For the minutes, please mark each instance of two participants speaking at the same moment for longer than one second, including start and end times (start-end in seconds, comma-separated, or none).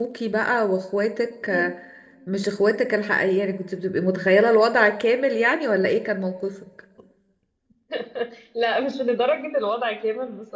none